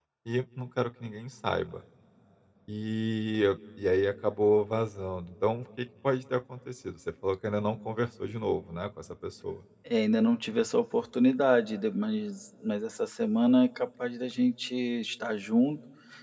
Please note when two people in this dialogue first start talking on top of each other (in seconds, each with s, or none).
none